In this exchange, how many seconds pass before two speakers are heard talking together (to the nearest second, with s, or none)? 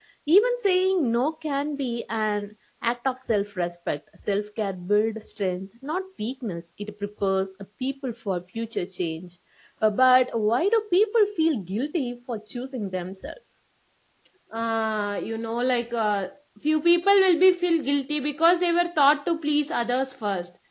none